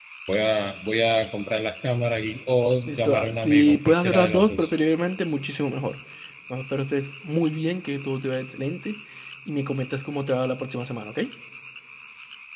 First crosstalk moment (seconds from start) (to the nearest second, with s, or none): 3 s